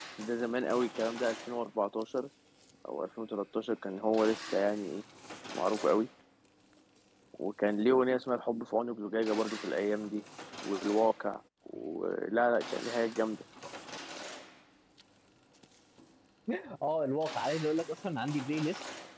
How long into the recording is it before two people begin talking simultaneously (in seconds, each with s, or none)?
none